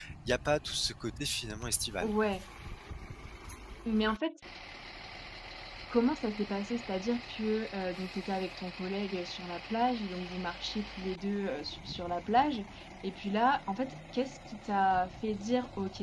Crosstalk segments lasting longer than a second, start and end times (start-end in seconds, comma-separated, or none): none